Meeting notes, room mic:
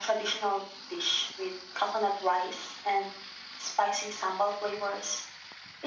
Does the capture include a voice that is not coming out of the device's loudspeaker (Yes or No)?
No